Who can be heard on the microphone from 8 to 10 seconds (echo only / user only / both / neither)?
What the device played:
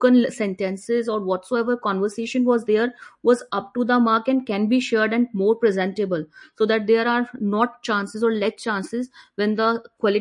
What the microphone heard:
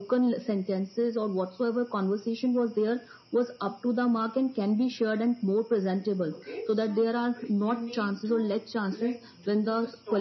both